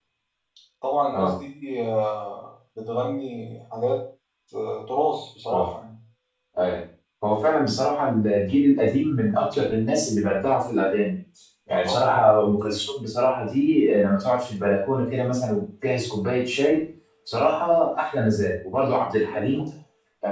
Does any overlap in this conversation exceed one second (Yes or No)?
No